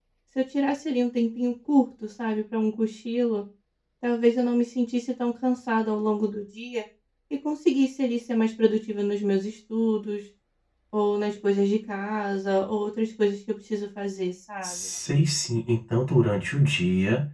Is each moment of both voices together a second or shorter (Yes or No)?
Yes